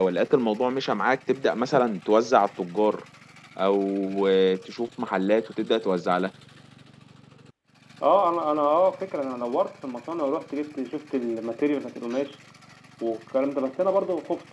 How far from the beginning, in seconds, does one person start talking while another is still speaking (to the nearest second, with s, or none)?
none